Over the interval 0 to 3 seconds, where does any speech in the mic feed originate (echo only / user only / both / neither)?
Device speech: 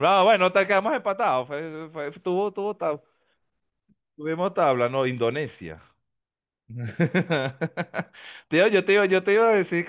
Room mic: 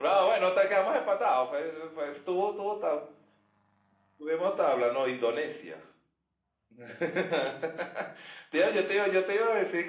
echo only